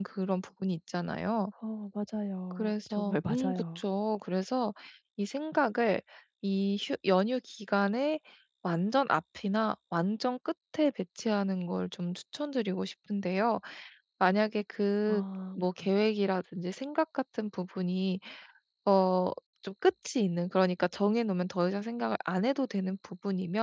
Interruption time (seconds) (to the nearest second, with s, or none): 3 s